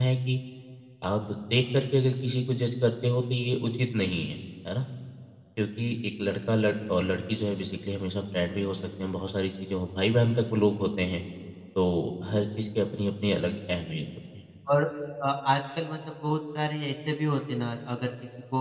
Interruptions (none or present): none